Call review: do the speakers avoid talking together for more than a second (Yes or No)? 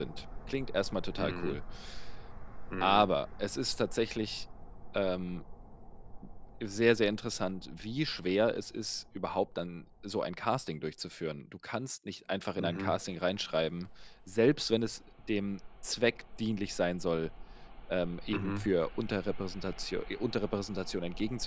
Yes